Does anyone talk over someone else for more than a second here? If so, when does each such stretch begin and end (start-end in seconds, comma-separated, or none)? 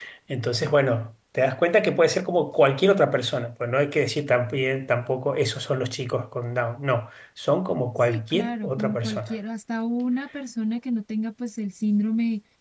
8.0-9.4